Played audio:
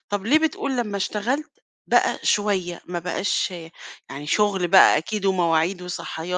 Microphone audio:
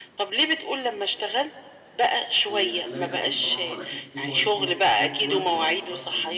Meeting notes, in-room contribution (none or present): present